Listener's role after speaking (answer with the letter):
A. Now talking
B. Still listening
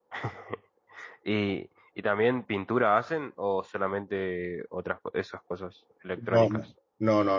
A